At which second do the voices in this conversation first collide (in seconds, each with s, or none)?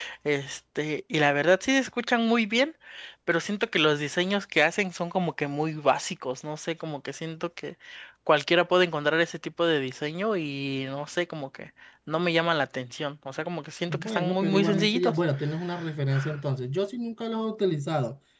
13.9 s